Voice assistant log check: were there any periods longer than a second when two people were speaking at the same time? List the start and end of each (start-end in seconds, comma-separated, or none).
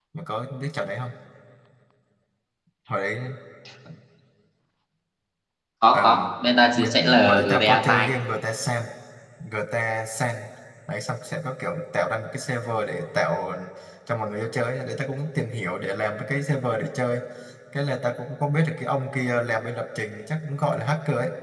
6.8-8.1